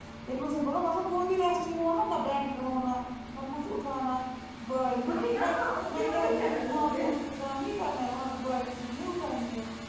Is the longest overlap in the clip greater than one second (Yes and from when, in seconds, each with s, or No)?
No